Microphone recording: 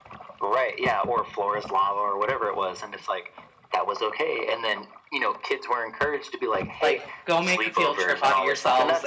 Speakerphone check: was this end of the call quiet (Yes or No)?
No